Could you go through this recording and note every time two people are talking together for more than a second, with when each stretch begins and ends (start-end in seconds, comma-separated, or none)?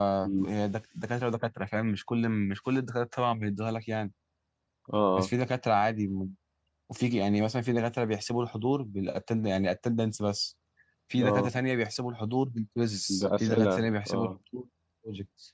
13.1-14.3